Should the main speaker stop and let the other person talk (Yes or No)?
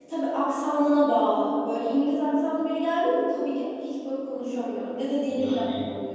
Yes